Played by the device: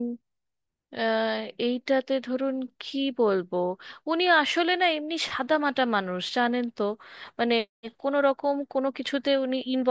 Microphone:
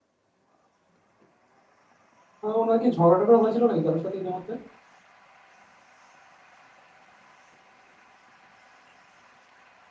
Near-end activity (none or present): present